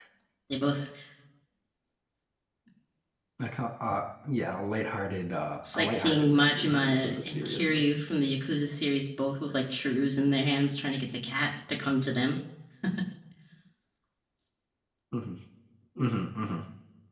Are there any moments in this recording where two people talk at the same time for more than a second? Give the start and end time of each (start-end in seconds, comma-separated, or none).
5.7-7.8